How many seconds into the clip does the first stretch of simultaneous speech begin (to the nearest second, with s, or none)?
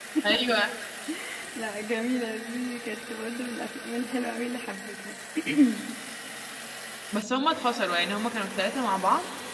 none